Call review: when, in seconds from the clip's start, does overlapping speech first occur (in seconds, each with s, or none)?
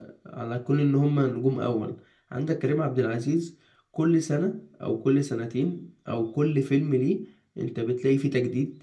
none